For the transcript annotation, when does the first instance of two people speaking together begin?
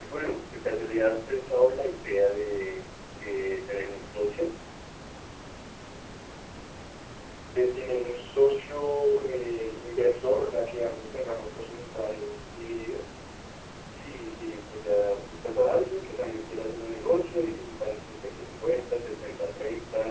none

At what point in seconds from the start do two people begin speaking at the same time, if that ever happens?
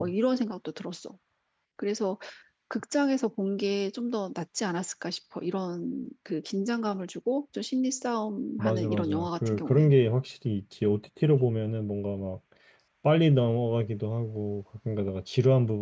9 s

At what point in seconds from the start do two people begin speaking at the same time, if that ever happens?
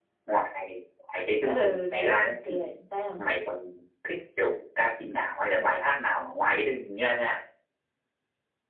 1 s

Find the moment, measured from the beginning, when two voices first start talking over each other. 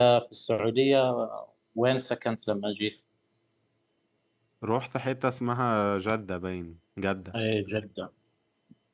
none

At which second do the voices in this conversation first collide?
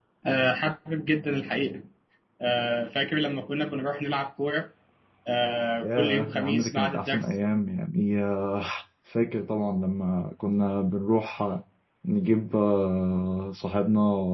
6 s

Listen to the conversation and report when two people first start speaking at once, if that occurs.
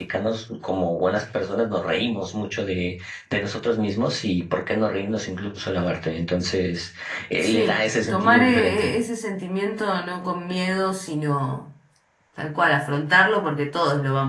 7 s

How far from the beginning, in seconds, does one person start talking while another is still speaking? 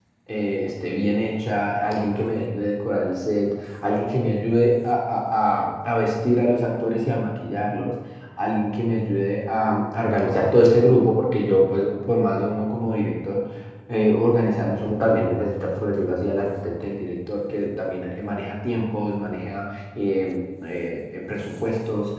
none

